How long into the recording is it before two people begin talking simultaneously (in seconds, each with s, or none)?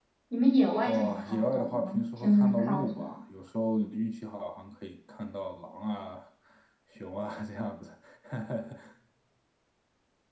0.8 s